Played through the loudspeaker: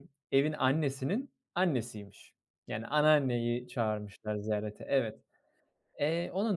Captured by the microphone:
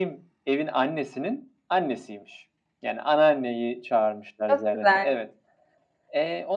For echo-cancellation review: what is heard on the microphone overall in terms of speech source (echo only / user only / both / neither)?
both